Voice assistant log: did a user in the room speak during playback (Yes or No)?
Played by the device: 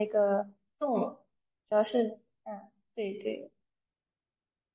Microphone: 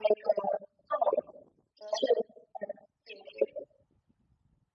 No